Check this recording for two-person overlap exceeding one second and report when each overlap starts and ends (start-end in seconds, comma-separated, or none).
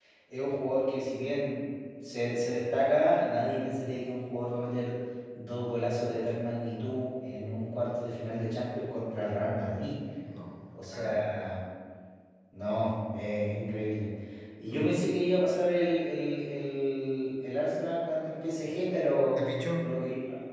none